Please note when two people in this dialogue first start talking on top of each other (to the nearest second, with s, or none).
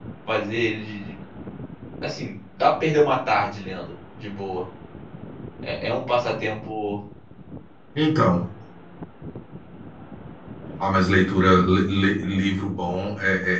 none